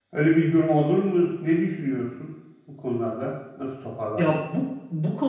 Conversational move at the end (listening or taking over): taking over